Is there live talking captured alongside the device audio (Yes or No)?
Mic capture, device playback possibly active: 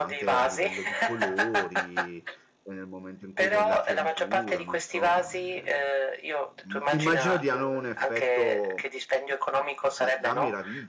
Yes